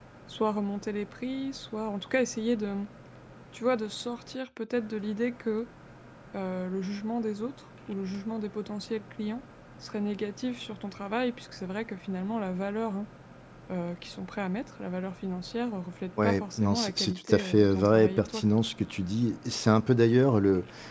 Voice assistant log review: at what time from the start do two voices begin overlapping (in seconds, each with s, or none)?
16.2 s